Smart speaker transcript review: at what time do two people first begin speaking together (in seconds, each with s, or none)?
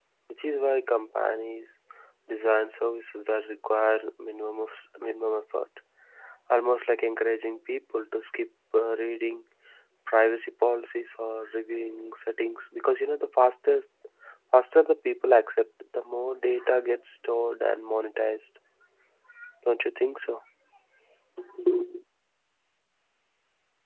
none